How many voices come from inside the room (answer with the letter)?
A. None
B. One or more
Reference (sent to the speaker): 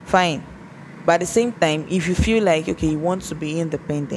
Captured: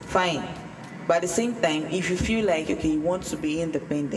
A